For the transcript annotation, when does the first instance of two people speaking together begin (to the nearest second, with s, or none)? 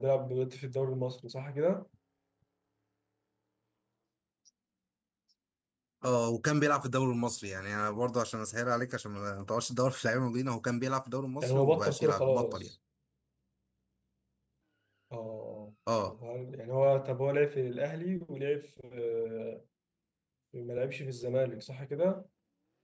11 s